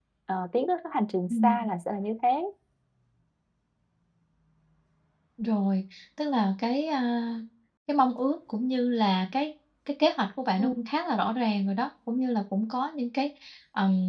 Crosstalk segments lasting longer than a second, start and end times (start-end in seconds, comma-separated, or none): none